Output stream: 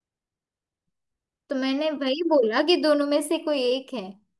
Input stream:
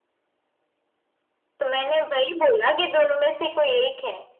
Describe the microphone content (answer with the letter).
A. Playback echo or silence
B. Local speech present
A